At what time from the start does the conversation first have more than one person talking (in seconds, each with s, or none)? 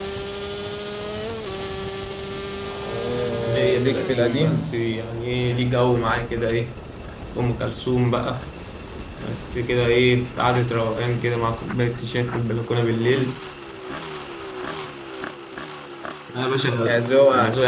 3.5 s